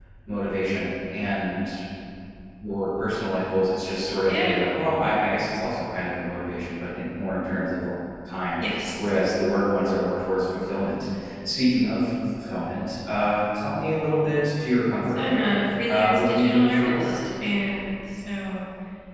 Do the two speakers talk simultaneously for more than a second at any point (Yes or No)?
Yes